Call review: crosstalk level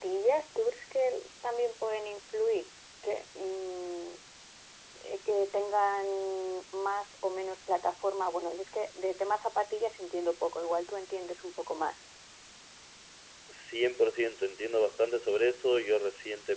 none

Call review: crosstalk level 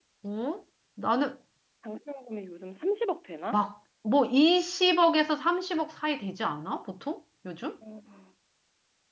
none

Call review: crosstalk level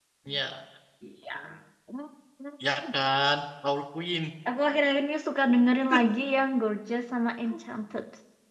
none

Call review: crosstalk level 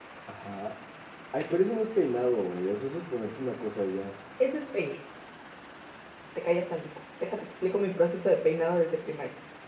none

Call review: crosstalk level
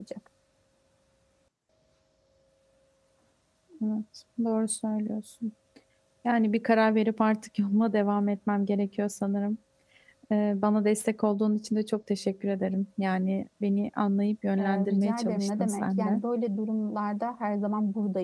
present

